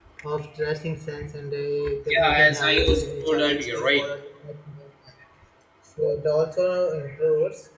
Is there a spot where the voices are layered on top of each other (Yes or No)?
Yes